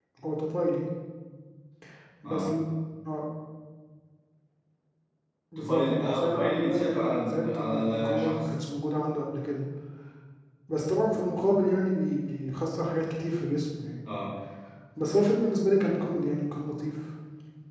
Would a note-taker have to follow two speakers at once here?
Yes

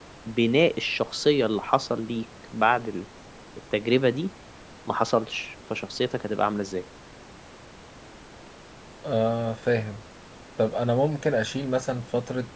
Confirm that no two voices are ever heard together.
Yes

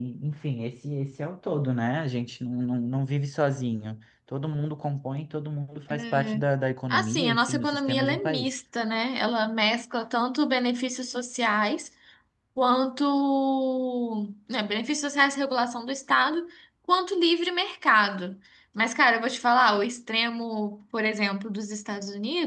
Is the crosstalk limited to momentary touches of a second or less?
No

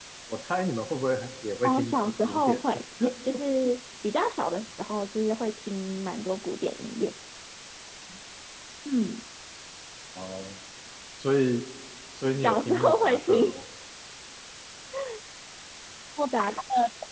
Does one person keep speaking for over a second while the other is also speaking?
Yes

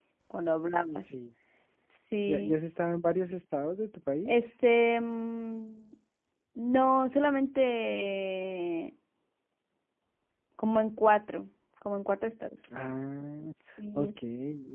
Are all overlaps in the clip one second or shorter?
Yes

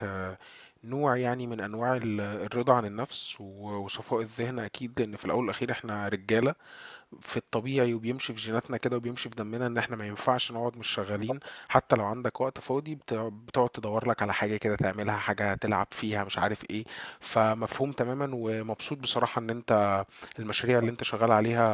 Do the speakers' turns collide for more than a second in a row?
No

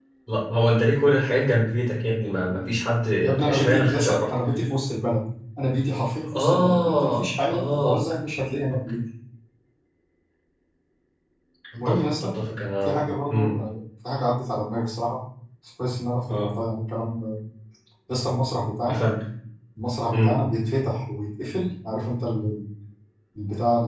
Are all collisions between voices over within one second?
No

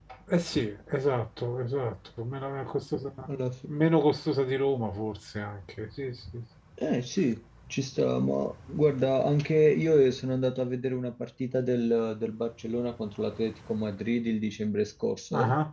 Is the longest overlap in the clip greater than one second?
No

